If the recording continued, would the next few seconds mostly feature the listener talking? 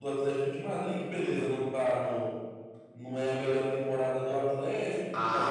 Yes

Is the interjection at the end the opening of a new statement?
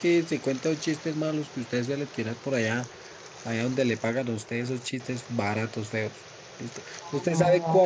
No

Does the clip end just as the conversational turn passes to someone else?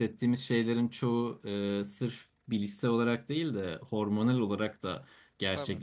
No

